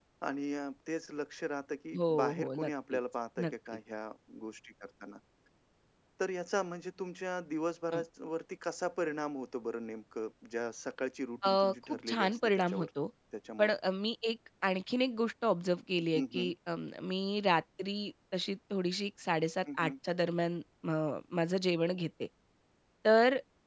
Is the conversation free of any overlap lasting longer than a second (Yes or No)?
No